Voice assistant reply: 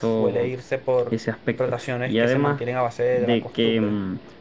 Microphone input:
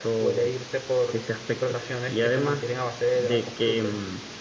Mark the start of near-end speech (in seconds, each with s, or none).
none